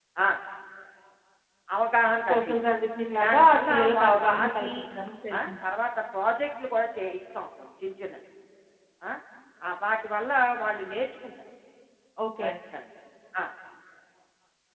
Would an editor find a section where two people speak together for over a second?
Yes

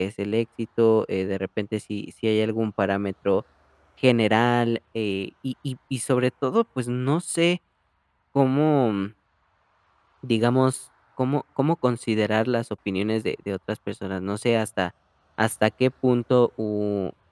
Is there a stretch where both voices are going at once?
No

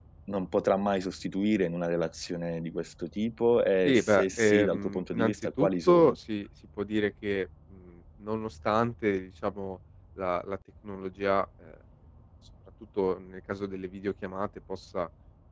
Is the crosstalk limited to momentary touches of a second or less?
No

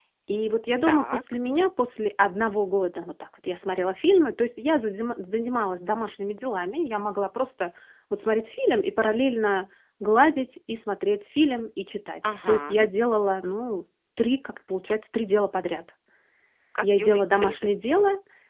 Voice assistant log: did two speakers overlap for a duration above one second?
Yes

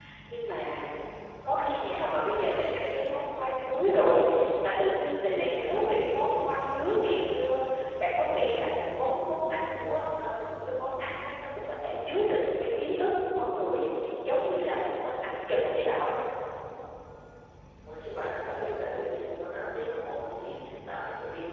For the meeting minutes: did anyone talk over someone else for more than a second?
No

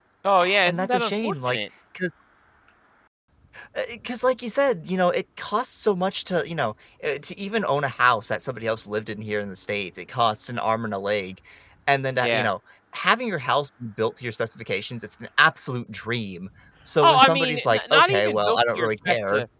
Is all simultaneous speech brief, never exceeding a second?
No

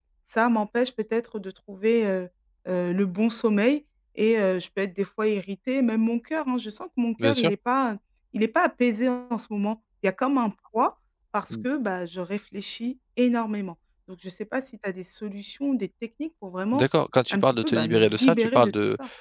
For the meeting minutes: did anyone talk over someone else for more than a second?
Yes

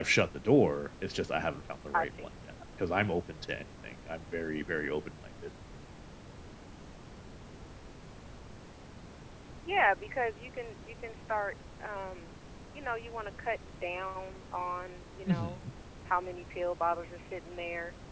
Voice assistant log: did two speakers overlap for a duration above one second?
No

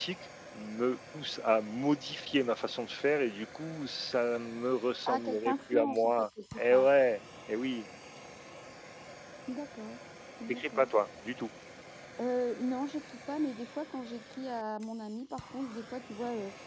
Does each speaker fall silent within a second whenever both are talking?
No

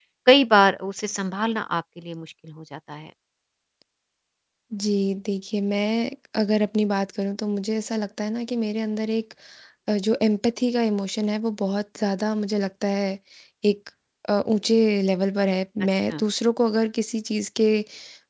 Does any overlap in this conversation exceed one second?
No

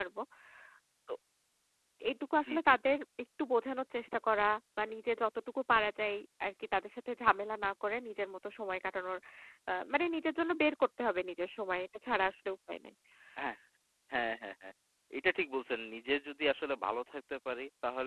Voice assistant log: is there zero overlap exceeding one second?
Yes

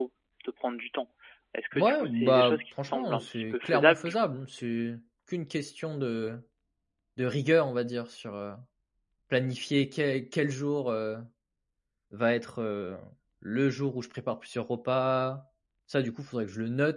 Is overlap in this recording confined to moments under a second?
No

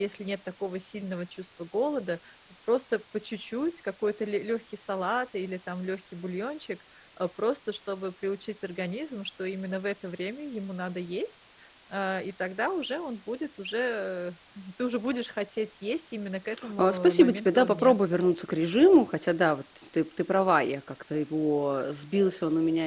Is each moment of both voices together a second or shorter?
No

